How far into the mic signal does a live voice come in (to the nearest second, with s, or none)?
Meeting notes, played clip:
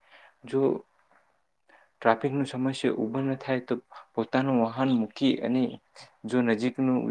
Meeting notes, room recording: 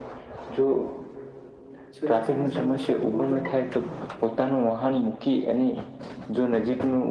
2 s